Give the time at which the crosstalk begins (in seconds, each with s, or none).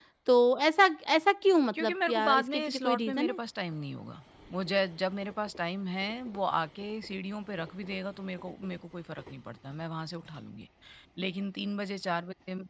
1.7 s